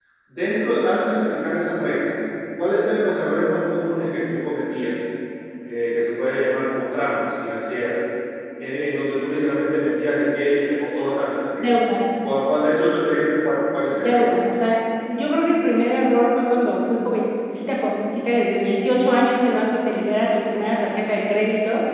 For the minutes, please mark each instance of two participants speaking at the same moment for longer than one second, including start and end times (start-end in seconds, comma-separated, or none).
none